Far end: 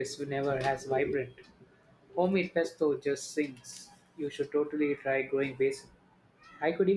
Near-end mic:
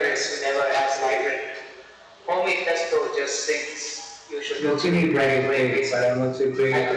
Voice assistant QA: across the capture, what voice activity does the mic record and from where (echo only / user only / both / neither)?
both